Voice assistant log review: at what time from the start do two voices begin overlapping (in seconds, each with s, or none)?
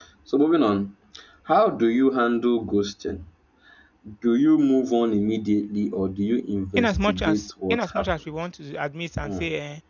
6.8 s